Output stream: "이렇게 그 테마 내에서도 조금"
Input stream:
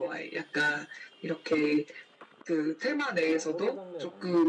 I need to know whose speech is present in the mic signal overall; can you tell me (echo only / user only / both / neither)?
both